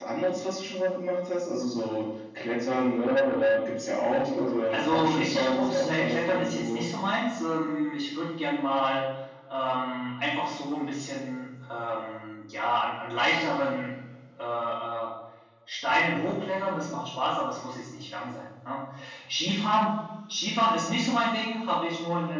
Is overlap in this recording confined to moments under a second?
No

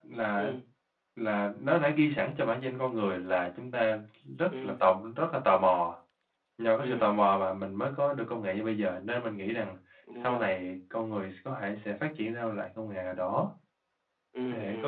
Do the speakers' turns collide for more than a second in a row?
No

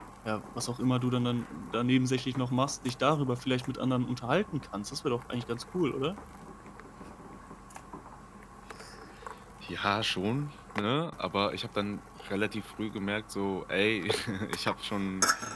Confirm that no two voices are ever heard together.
Yes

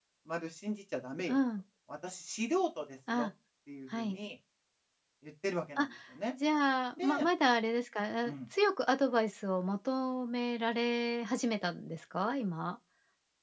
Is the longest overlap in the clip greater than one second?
No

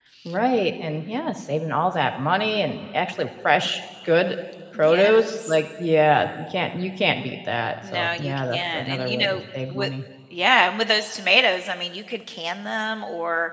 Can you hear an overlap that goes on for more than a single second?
Yes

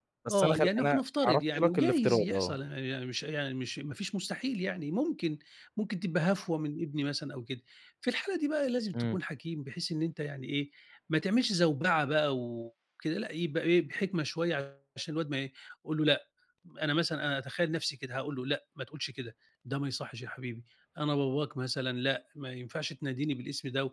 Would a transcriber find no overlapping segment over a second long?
No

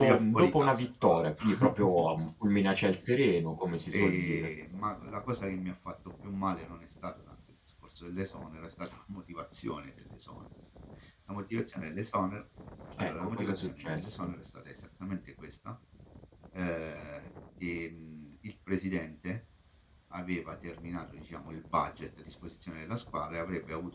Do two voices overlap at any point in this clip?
Yes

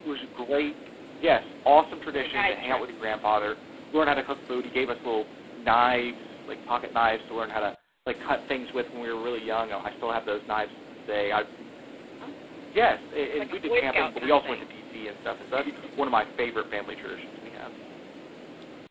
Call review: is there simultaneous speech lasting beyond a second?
Yes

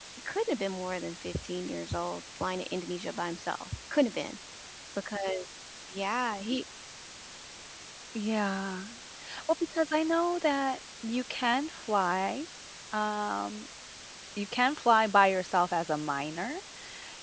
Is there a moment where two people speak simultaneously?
No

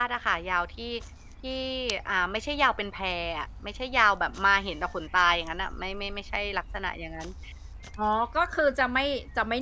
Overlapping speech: No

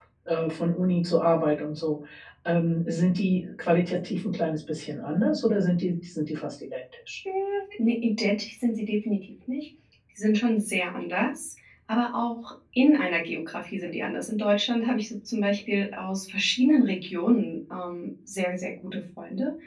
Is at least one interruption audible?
No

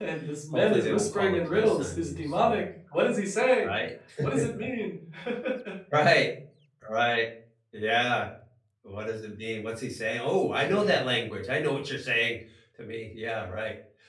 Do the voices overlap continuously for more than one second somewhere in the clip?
Yes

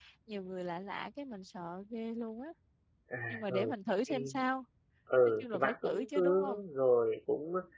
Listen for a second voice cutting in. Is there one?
Yes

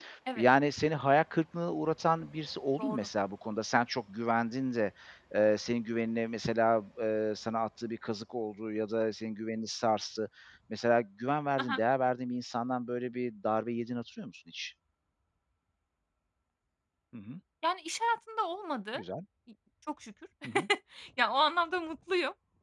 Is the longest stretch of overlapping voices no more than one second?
Yes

